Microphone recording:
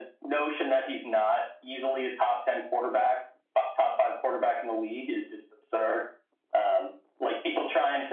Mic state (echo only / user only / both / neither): echo only